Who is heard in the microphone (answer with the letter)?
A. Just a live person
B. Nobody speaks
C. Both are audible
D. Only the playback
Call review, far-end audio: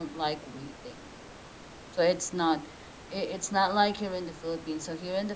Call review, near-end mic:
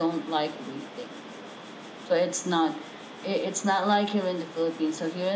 D